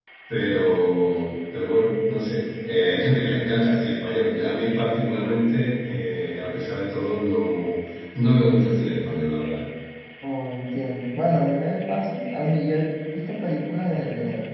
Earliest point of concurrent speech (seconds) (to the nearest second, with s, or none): none